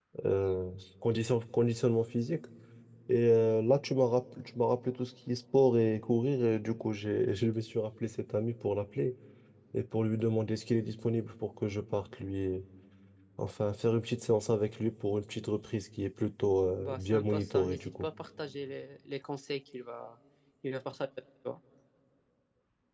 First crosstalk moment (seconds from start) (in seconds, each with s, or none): 16.8 s